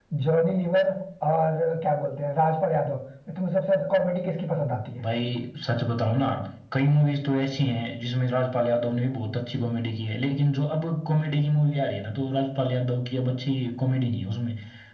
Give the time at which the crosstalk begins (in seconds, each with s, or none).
none